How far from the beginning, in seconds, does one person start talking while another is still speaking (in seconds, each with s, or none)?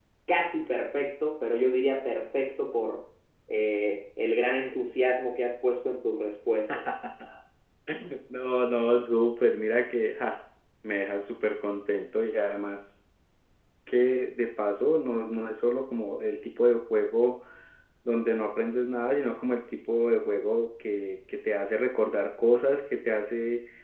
none